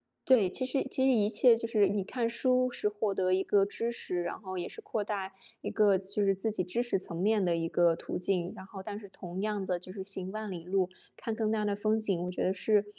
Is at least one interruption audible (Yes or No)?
No